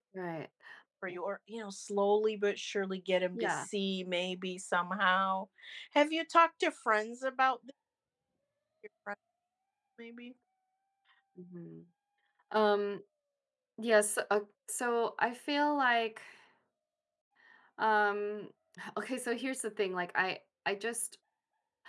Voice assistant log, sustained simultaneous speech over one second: none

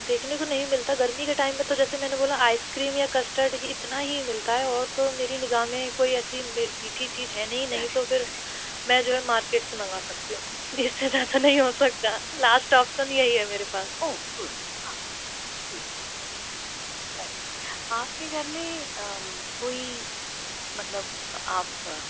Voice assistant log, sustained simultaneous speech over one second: none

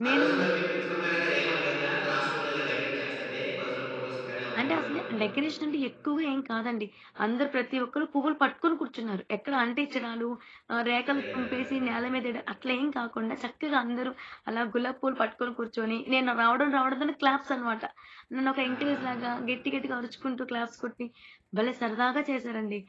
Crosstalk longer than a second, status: none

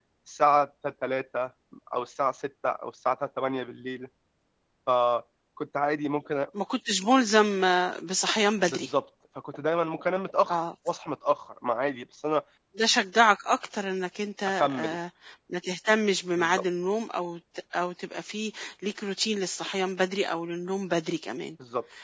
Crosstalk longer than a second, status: none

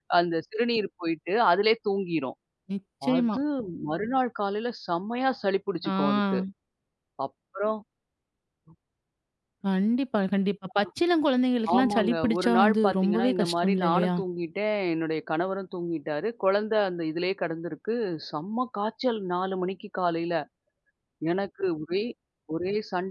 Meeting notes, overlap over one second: present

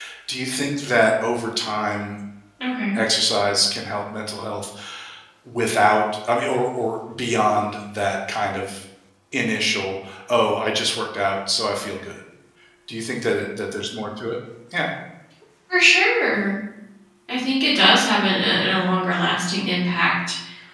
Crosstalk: none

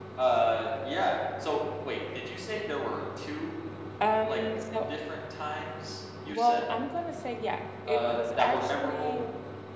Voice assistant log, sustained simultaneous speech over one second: present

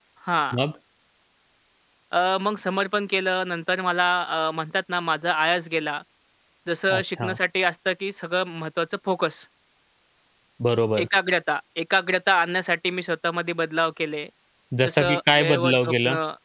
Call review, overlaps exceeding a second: present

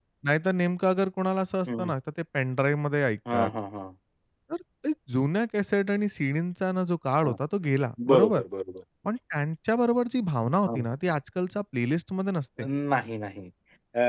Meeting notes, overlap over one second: none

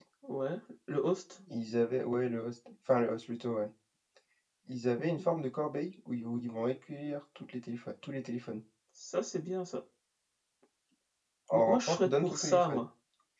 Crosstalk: present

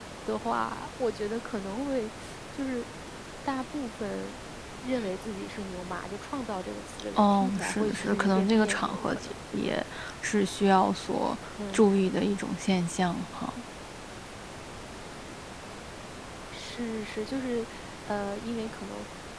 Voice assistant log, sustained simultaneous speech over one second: present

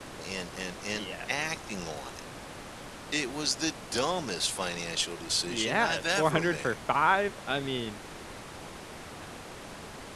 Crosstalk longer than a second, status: present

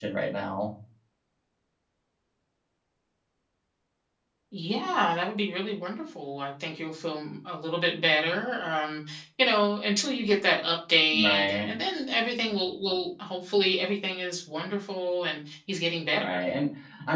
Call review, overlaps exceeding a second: none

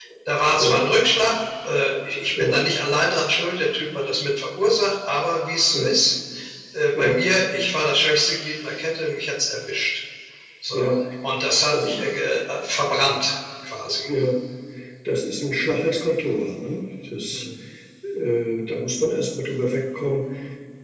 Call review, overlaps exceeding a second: none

